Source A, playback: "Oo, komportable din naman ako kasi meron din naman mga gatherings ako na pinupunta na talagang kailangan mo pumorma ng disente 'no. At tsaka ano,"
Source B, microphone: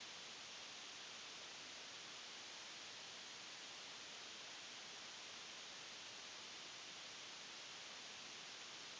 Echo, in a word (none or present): none